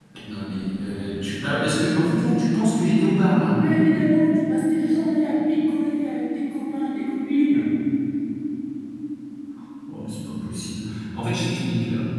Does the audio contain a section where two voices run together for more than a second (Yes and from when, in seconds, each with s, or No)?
No